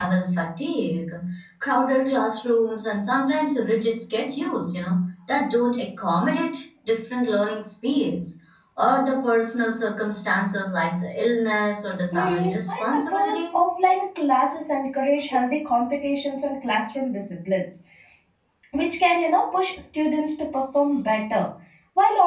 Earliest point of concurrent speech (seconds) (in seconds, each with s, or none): 12.1 s